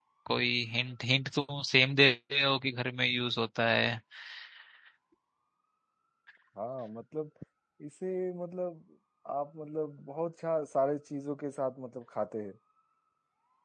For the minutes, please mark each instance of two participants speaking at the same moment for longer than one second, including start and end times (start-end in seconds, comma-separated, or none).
none